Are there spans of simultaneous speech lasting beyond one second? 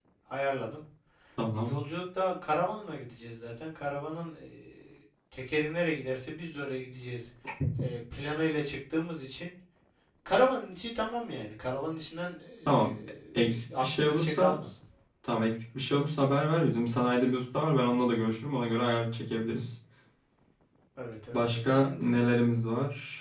Yes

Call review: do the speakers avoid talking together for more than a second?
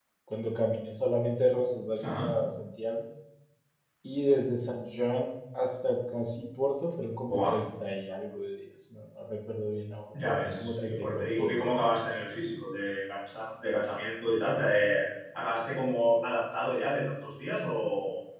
No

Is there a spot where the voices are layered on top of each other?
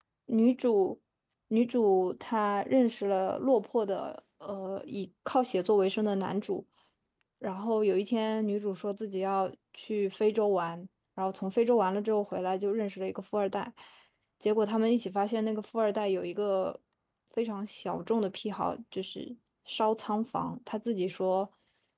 No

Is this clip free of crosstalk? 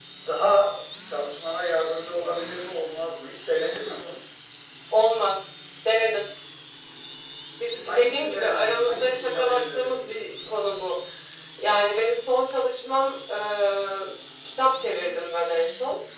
No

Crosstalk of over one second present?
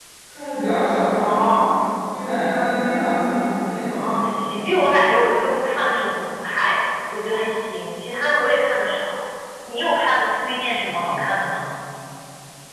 No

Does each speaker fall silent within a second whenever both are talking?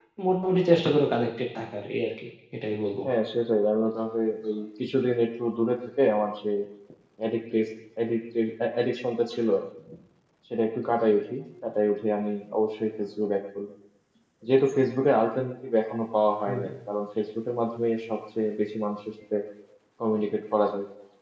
Yes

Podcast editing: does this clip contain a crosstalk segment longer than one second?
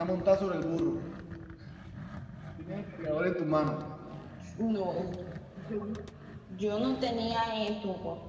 No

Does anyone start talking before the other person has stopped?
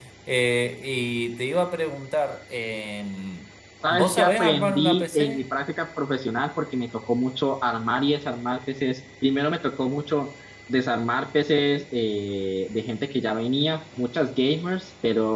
Yes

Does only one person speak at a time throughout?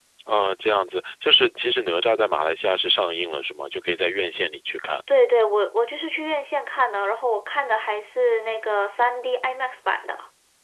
Yes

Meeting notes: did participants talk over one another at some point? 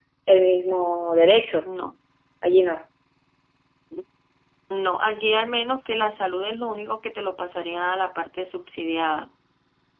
No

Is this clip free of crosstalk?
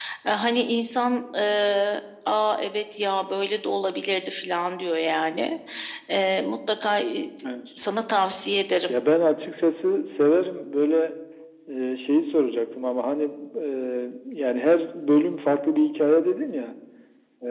Yes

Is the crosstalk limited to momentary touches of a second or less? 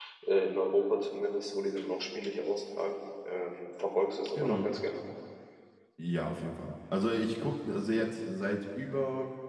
Yes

